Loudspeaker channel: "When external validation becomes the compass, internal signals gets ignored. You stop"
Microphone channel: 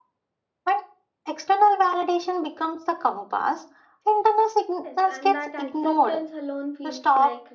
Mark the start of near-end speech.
4.8 s

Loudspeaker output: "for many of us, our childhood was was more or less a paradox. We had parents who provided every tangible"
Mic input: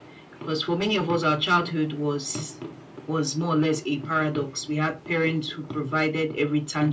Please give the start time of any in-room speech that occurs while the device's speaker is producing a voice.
none

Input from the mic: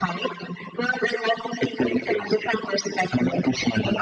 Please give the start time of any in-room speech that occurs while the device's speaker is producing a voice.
none

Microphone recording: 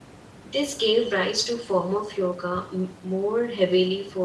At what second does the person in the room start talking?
0.4 s

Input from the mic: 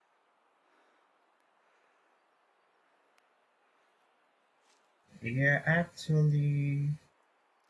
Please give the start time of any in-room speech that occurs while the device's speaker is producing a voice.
5.2 s

